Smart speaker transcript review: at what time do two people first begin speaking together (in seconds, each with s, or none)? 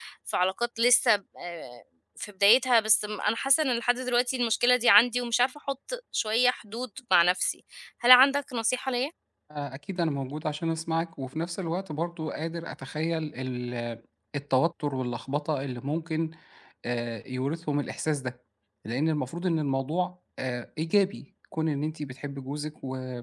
none